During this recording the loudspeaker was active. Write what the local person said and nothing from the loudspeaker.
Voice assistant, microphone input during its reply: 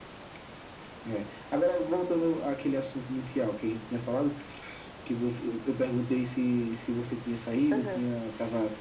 Aham.

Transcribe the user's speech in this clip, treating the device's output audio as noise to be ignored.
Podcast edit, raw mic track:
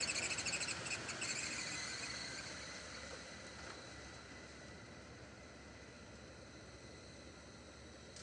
none

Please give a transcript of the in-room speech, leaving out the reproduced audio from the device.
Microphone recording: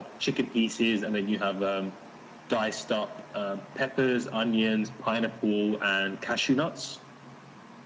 none

